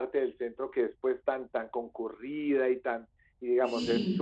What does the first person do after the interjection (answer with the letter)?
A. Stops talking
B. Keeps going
B